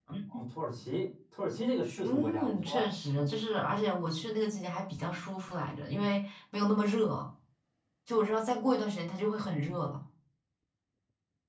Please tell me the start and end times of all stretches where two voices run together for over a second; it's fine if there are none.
2.0-3.4

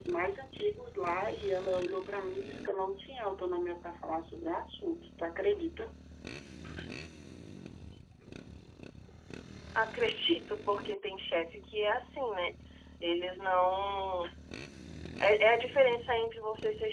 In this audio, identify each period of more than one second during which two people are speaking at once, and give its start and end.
none

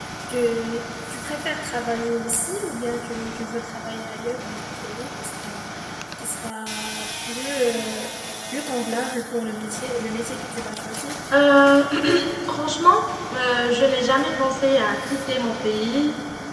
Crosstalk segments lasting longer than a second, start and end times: none

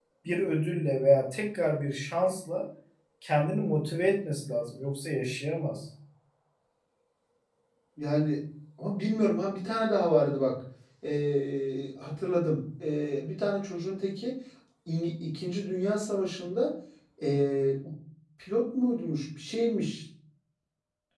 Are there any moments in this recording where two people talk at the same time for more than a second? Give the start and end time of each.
none

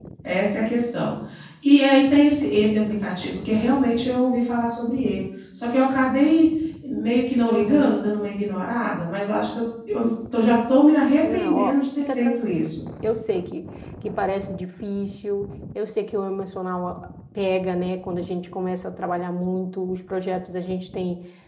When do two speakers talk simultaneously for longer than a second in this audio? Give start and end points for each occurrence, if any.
11.3-12.7

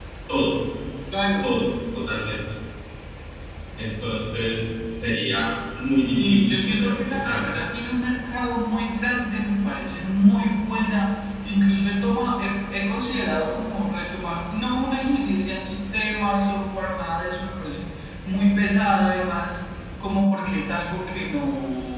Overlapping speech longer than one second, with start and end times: 6.2-7.5

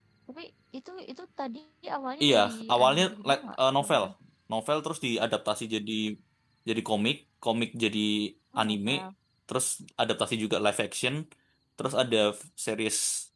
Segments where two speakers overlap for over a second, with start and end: 2.2-4.0

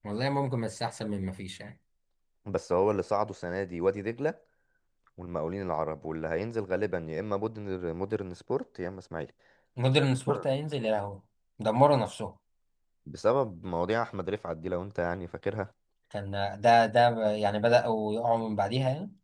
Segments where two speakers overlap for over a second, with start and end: none

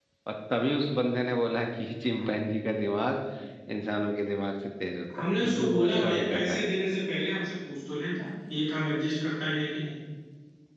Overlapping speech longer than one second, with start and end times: 5.2-6.8

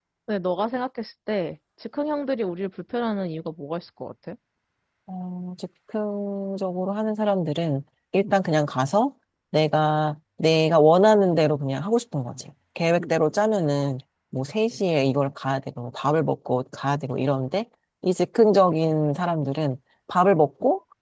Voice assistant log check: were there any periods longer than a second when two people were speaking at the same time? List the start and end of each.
none

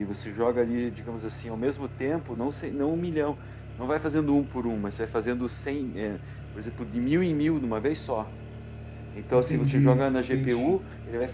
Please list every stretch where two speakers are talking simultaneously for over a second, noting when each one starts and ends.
9.3-10.8

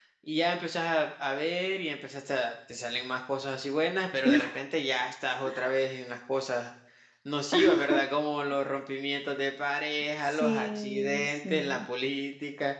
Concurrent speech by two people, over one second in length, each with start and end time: 10.2-11.9

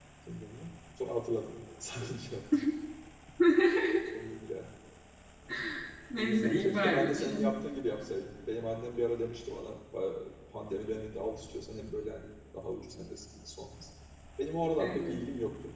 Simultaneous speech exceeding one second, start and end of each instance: 6.2-7.4

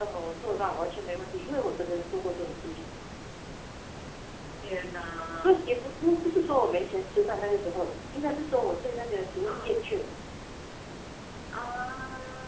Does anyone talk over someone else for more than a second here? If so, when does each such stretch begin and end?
none

